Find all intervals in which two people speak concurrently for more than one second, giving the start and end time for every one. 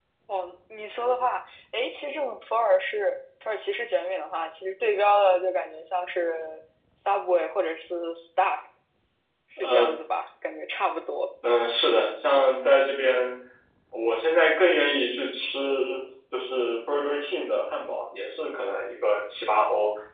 none

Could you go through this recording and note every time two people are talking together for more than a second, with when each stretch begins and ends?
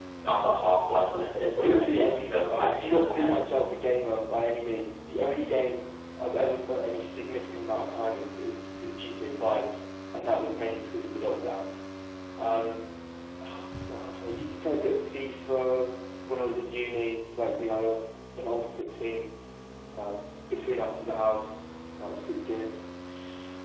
1.6-3.5

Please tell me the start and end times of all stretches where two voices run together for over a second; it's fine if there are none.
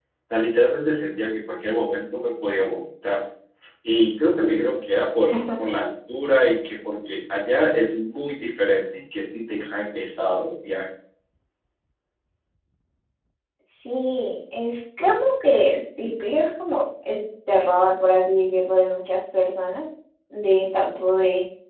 none

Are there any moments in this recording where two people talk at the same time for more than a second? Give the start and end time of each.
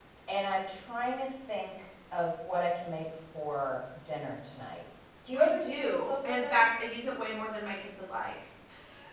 5.3-6.6

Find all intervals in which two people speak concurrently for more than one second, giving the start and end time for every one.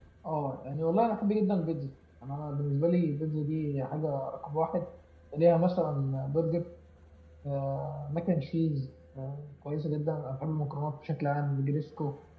none

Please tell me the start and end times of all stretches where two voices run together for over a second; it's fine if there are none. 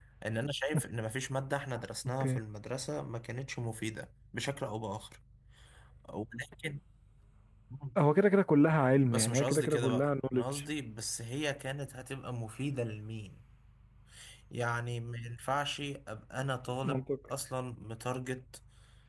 9.1-10.4

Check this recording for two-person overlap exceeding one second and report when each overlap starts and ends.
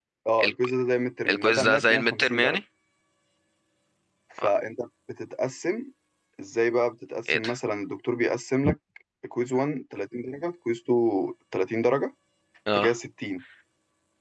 1.3-2.6

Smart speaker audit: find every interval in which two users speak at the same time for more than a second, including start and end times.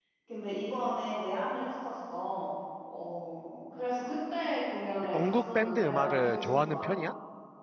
5.1-7.0

